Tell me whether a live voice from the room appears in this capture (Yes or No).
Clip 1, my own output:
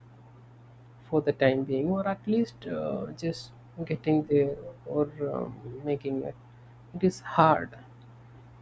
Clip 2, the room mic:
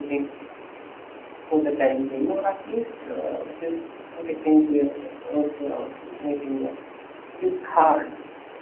No